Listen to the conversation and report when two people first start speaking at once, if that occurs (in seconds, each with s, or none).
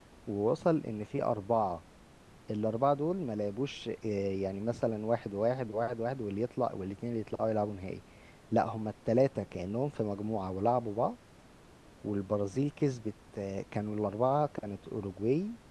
none